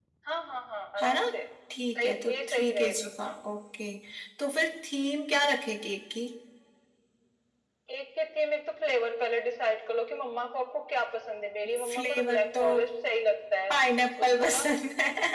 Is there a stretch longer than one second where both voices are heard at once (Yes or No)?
Yes